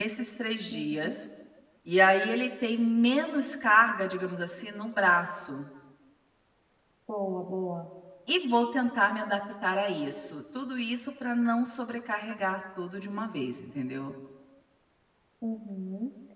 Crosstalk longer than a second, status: none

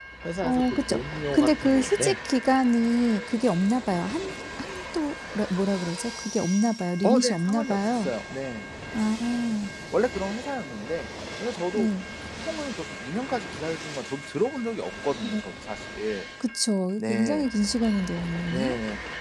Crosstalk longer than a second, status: present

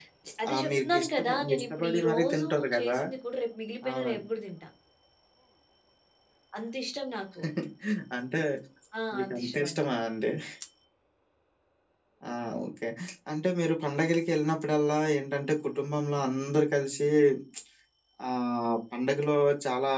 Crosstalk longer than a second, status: present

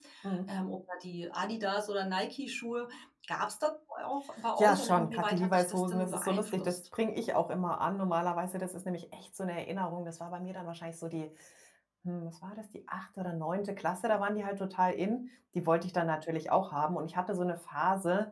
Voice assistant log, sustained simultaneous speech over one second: present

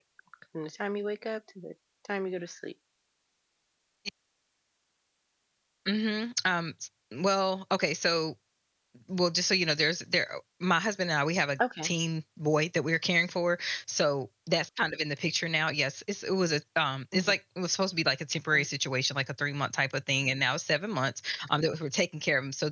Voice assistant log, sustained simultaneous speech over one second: none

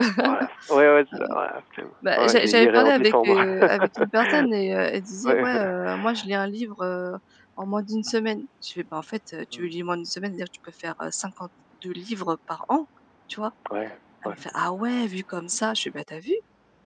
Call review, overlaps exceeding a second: present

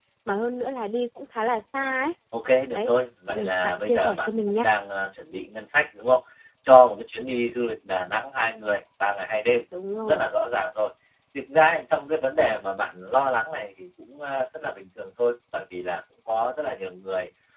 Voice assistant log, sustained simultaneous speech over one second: present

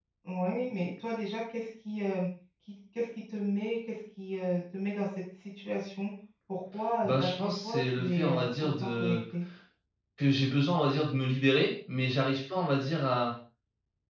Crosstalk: present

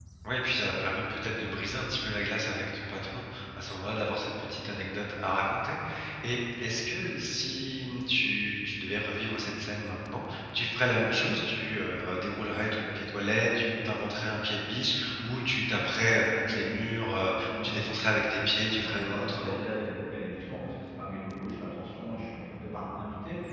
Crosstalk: present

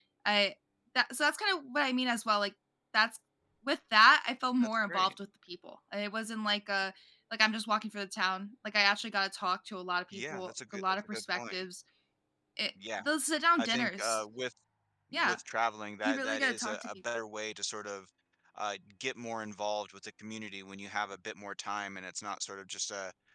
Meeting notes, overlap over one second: present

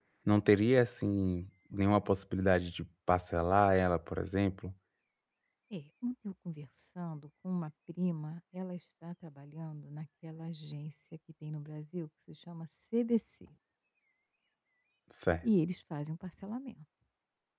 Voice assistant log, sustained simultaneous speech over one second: none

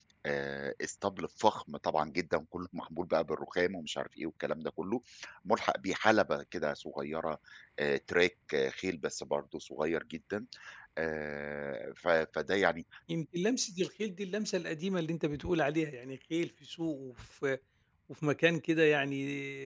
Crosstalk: none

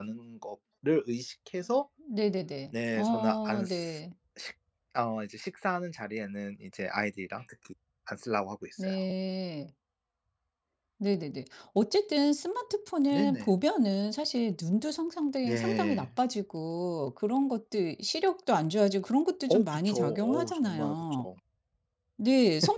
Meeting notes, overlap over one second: present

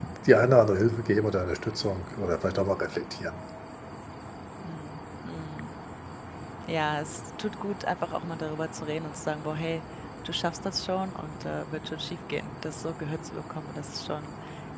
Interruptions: none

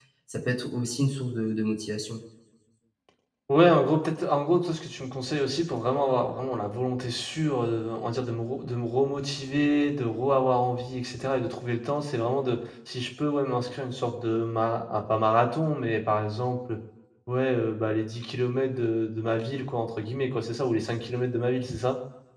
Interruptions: none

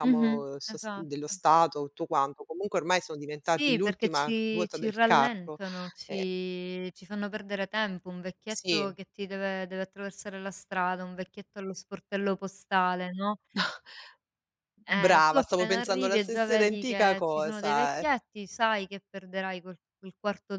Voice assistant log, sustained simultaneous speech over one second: present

